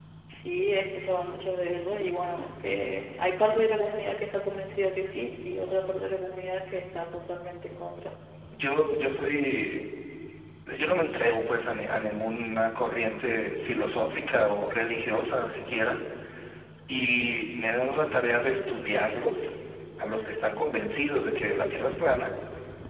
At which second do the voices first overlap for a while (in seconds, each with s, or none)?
none